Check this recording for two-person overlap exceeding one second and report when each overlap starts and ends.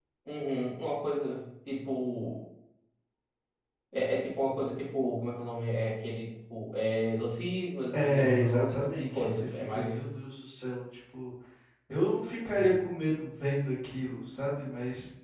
8.0-10.2

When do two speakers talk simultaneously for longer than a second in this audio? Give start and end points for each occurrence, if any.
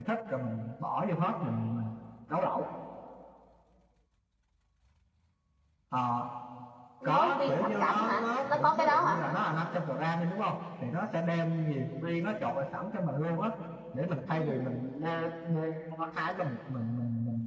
7.0-9.2

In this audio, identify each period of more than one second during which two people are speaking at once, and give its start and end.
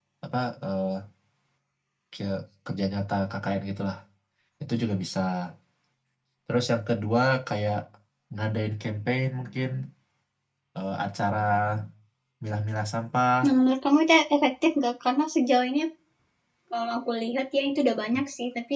none

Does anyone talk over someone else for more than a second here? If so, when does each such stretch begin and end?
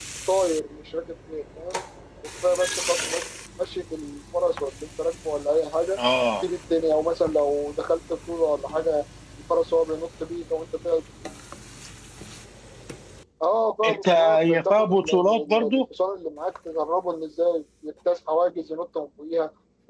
13.9-15.8

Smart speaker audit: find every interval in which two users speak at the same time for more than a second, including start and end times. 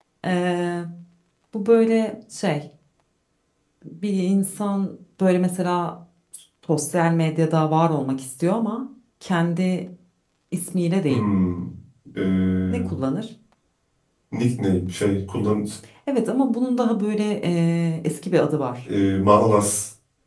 none

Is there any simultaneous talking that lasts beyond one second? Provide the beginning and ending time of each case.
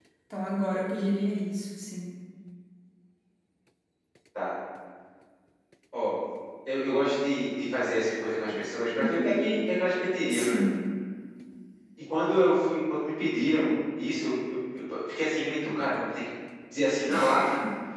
none

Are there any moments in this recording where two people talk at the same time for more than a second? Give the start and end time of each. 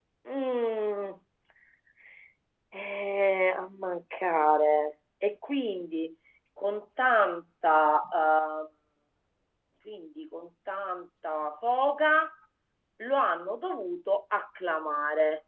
none

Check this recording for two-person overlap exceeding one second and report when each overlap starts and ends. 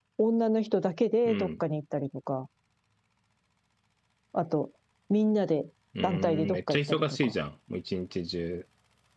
6.0-7.3

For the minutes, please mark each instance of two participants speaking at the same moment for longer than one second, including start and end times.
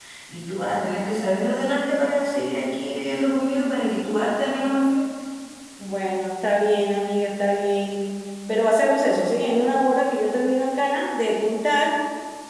none

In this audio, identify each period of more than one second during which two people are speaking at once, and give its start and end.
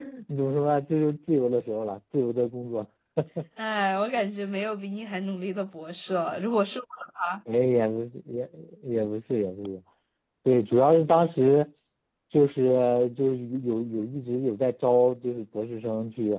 none

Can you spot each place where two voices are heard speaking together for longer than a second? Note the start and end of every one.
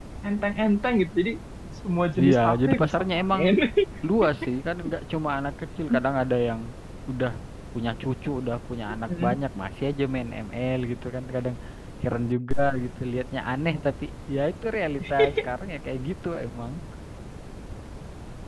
2.2-3.4

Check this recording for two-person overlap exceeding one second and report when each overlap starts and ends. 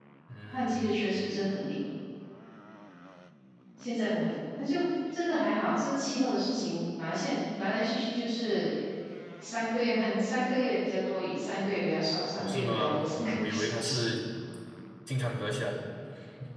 12.4-13.9

